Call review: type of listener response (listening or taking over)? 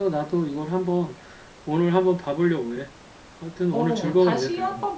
taking over